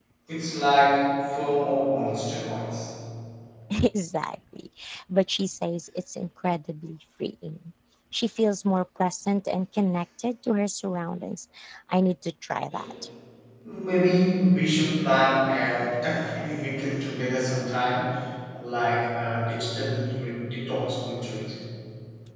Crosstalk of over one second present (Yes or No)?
No